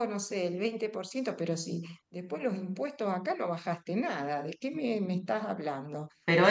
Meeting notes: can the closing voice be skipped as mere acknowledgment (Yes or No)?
Yes